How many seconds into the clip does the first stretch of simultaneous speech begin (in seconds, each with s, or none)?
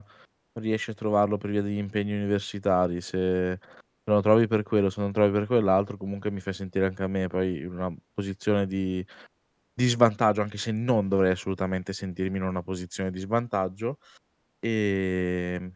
none